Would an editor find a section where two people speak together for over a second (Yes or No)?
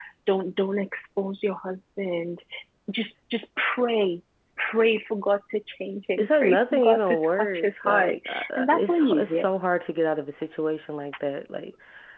Yes